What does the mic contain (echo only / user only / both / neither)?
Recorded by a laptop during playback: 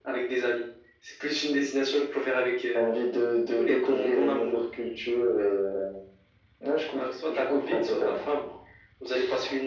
echo only